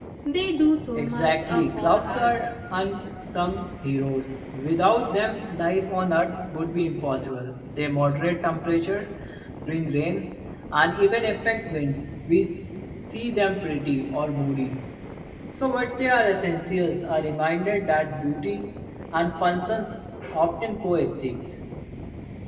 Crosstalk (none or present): present